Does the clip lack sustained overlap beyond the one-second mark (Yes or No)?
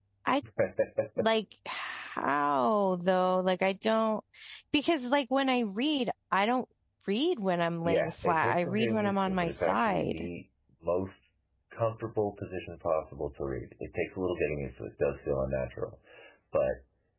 No